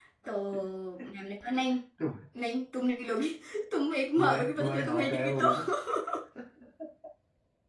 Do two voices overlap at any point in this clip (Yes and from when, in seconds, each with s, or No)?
Yes, from 4.2 s